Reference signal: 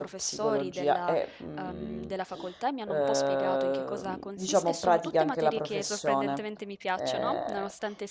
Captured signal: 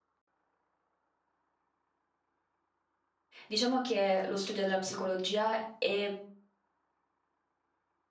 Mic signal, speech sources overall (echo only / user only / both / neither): user only